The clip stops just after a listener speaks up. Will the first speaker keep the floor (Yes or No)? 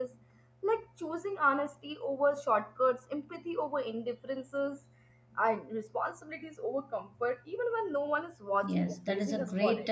No